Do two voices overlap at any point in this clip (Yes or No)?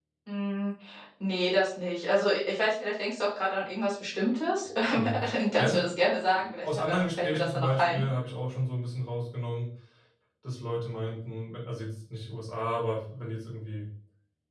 Yes